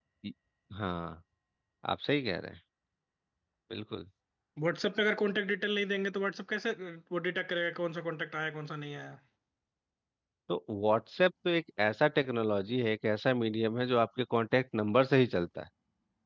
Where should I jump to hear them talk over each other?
none

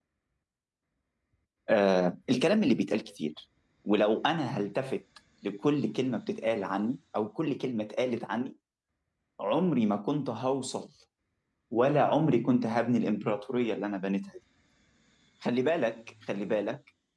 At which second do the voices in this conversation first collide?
none

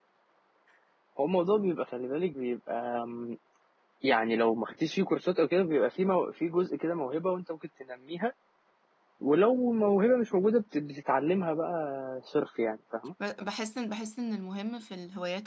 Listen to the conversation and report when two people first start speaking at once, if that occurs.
none

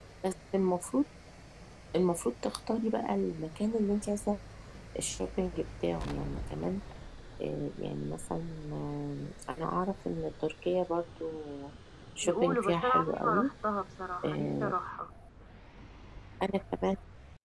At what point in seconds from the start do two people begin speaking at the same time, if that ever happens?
12.2 s

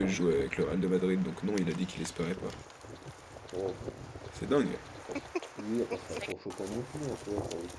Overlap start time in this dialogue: none

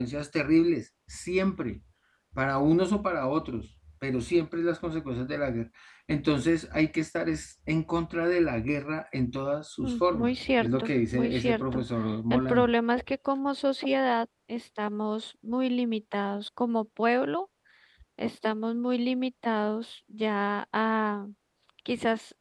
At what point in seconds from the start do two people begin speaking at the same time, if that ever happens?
9.8 s

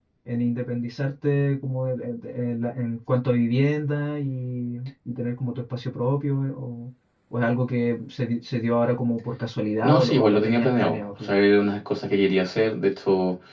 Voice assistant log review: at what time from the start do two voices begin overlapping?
9.8 s

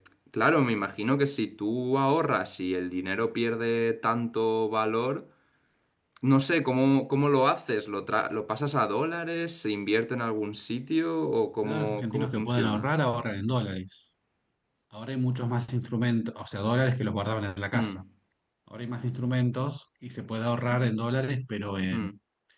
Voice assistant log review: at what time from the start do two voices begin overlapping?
11.6 s

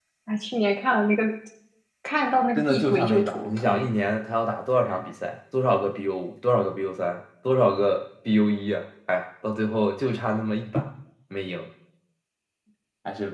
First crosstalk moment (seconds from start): 2.6 s

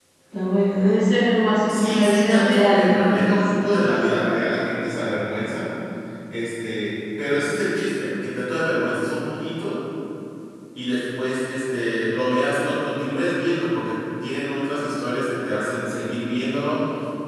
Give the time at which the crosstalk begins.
1.7 s

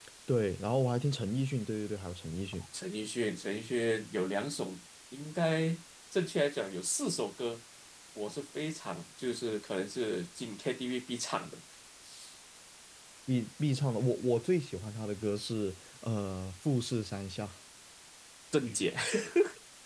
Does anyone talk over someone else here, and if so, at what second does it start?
none

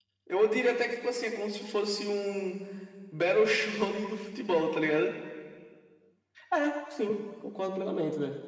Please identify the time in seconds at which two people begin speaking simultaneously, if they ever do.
none

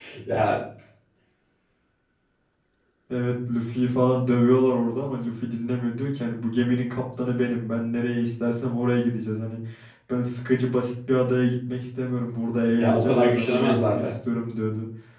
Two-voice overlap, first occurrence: 12.7 s

